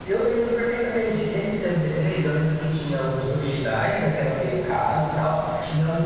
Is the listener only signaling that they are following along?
Yes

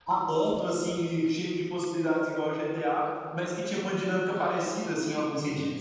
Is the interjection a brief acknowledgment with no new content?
No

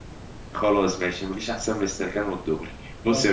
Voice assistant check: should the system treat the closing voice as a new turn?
No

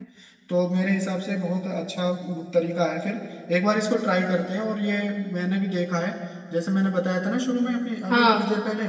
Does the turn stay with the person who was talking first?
Yes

